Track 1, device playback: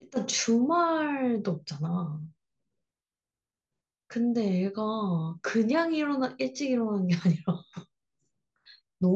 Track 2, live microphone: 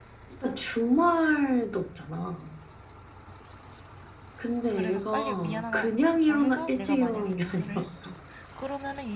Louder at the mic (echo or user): echo